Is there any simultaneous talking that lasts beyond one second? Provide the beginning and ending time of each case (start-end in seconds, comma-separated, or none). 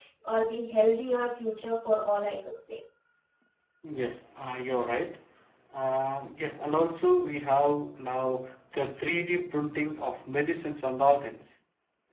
none